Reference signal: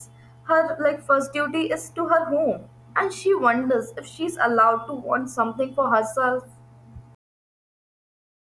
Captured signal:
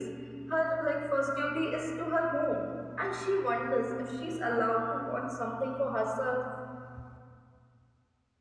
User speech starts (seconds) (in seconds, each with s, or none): none